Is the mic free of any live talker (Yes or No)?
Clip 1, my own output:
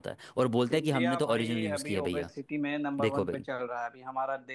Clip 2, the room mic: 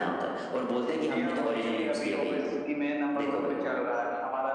Yes